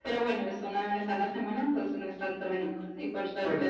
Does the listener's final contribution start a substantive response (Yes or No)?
No